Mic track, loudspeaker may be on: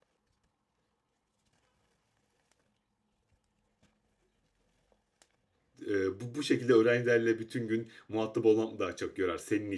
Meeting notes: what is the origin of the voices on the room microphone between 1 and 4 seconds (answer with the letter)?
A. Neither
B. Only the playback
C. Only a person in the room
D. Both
A